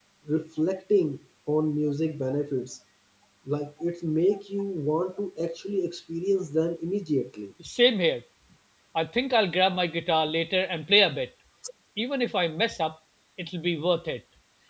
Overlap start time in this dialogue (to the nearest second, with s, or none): none